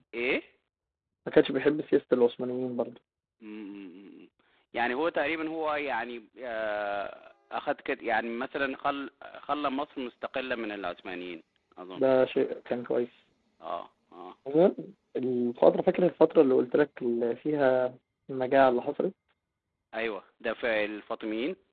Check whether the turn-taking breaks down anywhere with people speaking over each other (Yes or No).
No